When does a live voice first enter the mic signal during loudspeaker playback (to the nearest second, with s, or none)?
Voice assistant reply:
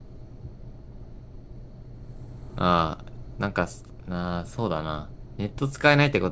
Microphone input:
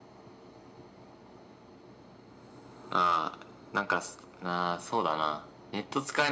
none